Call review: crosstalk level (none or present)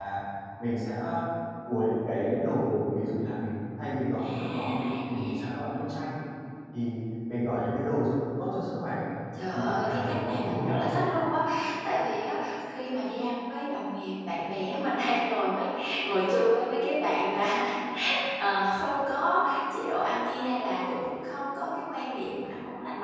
present